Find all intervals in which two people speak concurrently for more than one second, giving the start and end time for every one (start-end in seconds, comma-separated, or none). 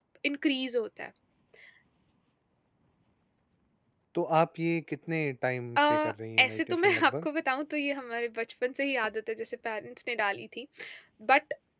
5.8-7.3